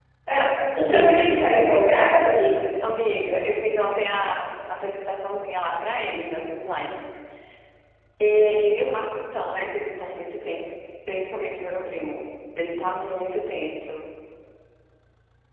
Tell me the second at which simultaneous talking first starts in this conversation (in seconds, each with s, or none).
none